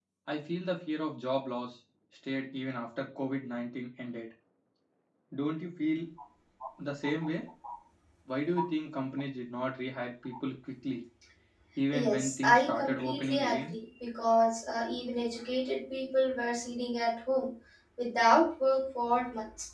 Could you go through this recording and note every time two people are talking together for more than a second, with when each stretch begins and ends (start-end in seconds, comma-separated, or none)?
11.9-13.7